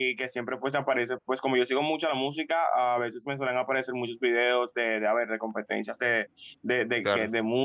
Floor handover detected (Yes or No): No